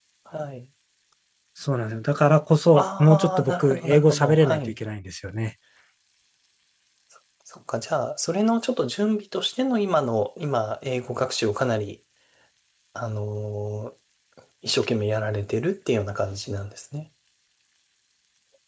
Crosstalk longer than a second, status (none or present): present